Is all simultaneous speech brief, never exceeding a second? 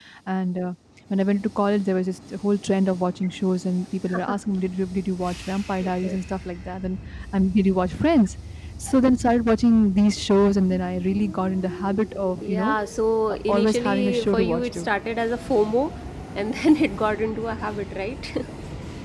No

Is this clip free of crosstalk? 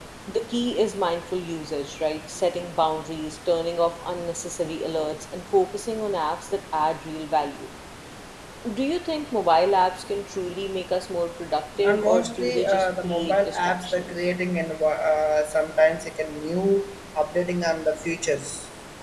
No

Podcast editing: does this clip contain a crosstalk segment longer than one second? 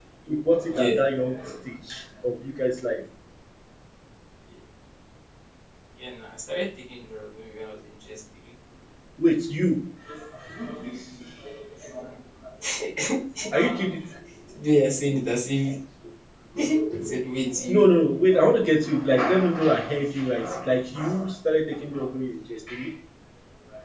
No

